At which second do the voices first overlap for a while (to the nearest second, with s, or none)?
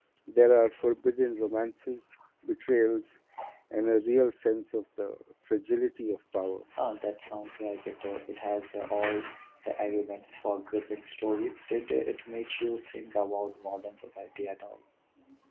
none